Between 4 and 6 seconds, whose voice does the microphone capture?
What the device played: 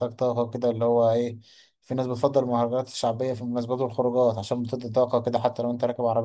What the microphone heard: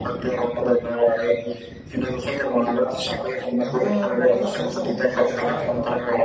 both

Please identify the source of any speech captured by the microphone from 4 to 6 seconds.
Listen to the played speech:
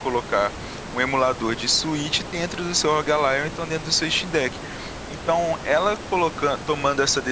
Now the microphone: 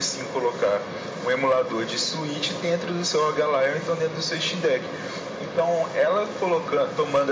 echo only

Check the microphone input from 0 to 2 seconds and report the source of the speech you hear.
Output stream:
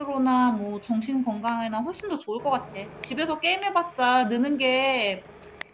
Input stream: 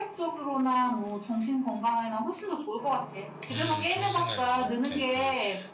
echo only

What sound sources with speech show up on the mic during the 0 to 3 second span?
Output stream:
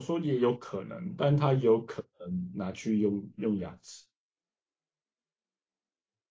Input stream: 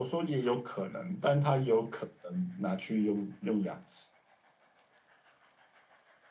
echo only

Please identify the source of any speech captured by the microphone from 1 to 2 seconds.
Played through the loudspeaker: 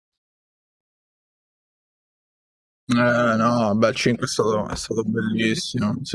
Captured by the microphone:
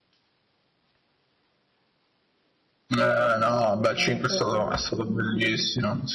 neither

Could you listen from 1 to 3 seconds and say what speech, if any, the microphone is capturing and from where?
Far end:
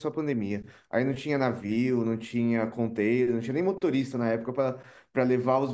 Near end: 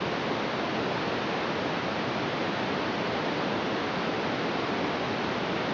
neither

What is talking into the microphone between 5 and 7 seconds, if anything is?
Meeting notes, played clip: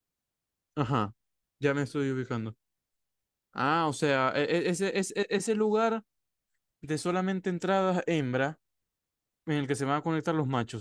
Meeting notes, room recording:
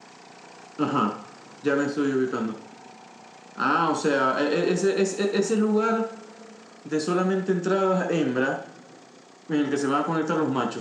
echo only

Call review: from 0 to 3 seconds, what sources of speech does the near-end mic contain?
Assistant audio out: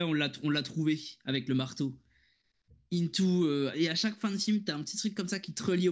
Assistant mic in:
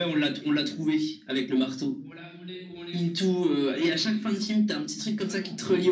both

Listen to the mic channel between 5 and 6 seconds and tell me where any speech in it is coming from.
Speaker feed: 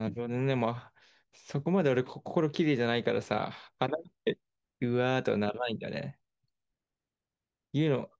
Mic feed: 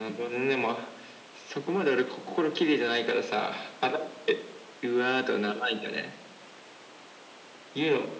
echo only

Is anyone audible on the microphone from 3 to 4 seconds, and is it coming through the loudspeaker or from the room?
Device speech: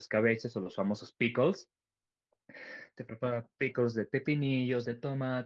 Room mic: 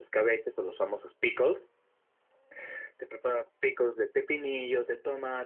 echo only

